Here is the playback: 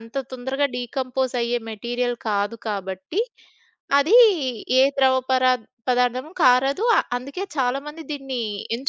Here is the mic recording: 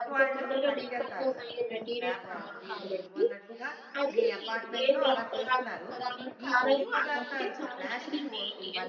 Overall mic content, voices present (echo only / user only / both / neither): both